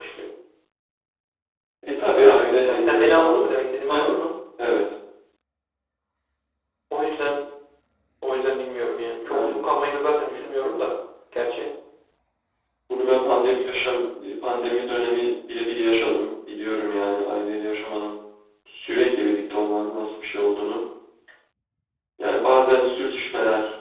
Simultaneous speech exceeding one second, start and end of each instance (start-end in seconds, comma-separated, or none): 2.1-3.4